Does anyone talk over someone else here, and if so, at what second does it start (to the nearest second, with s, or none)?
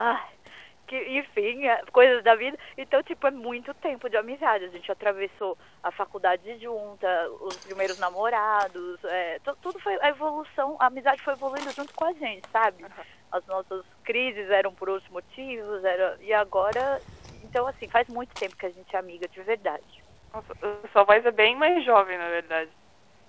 none